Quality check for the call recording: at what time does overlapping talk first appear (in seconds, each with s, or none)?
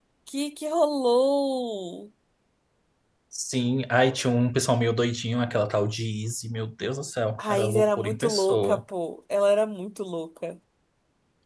7.4 s